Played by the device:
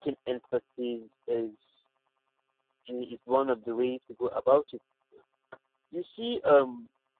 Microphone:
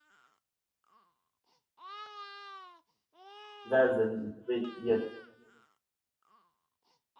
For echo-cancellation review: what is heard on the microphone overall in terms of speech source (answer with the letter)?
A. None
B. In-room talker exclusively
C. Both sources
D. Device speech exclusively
B